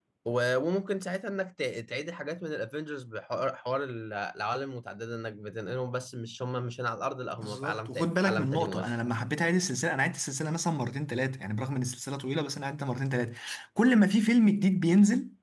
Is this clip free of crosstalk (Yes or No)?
No